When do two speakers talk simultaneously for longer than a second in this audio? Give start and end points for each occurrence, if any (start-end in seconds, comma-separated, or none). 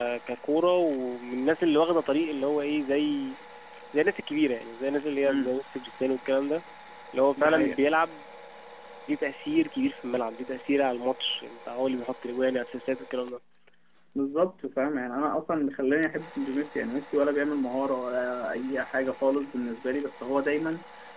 none